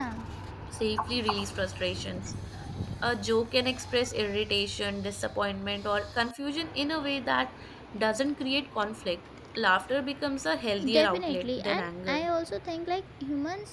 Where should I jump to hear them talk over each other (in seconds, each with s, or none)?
10.8 s